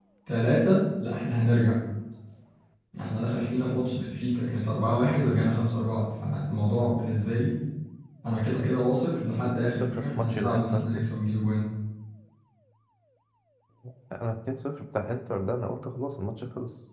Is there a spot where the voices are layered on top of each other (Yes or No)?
Yes